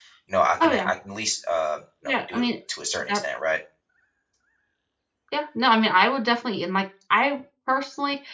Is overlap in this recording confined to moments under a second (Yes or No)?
Yes